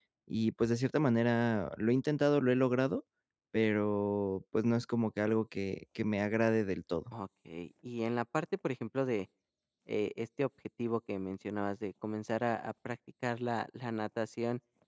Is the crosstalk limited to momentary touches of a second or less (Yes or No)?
Yes